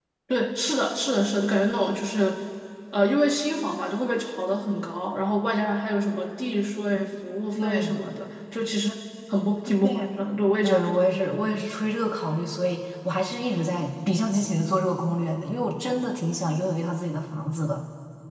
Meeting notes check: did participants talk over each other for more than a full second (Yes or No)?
No